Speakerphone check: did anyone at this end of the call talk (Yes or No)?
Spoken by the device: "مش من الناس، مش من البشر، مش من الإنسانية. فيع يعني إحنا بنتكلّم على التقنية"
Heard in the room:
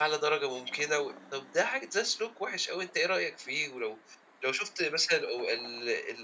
Yes